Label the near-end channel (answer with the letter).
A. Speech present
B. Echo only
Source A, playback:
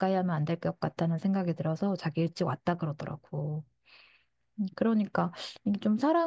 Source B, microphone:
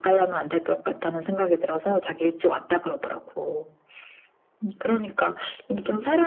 B